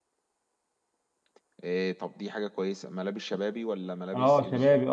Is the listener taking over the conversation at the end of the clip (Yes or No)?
Yes